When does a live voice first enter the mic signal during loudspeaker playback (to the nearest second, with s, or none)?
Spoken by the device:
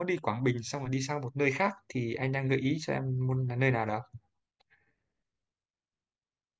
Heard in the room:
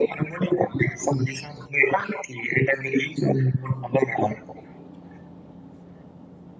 none